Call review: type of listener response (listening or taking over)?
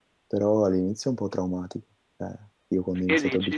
listening